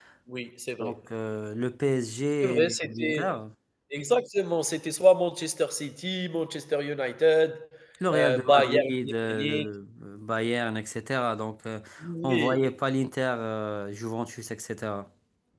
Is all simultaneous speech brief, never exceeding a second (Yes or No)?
No